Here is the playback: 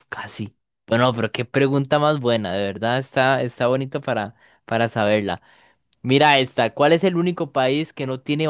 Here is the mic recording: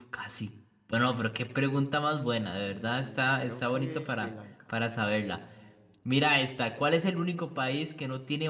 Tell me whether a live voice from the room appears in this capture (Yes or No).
Yes